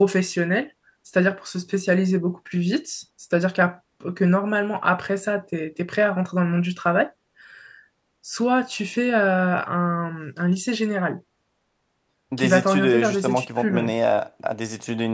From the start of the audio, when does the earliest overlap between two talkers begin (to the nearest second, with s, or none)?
12 s